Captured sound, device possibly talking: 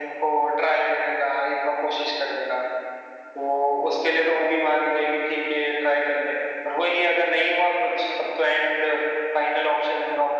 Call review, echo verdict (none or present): present